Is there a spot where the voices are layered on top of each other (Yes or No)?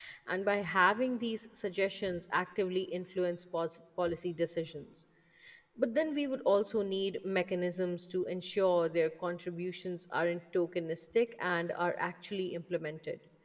No